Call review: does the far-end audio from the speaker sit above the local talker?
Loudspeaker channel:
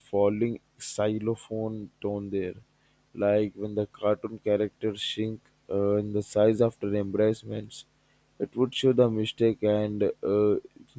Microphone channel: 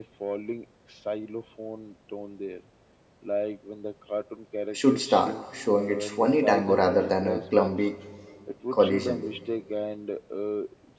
No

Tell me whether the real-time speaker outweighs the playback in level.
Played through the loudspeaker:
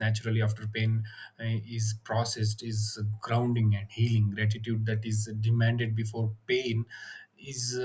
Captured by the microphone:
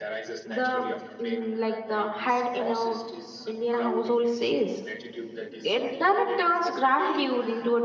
Yes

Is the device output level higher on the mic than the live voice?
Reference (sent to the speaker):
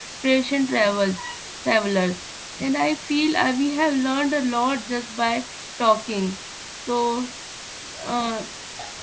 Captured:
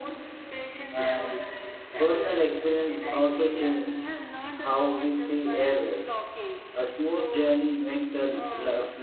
No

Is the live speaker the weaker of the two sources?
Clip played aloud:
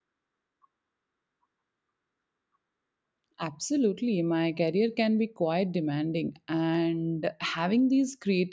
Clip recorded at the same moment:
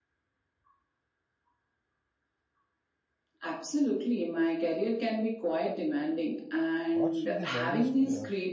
Yes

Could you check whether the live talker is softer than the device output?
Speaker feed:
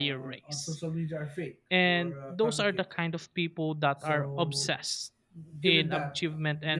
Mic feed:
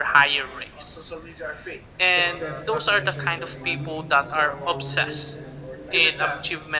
Yes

